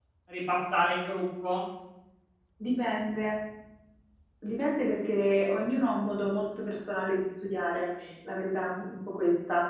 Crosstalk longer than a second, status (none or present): none